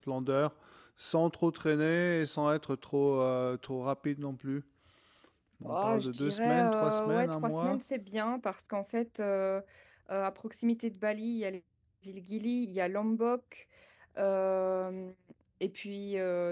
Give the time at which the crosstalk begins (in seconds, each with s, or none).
5.6 s